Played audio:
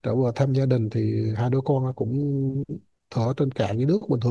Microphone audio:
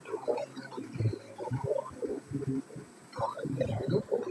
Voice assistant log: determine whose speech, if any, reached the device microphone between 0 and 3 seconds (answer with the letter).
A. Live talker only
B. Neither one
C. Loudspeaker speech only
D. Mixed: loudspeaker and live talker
C